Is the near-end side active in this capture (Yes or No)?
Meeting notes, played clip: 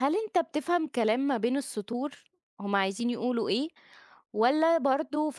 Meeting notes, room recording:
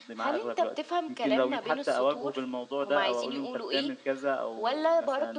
Yes